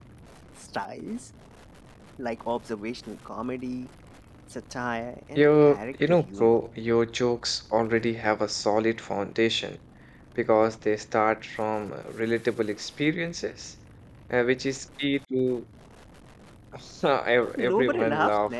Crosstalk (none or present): present